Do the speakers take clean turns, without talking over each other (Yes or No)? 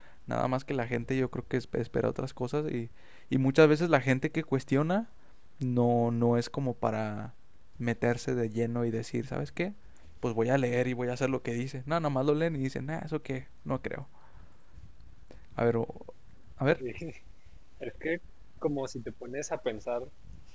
Yes